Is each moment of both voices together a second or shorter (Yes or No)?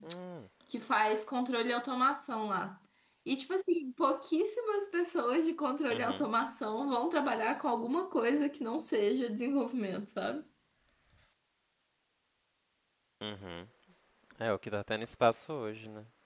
Yes